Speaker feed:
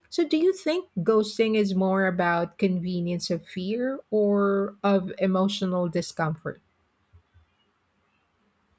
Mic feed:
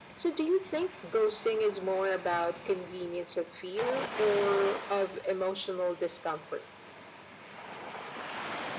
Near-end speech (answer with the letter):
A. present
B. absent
B